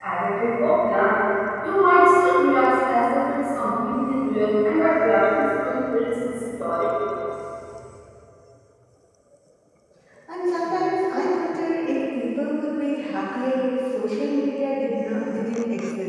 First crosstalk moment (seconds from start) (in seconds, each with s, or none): none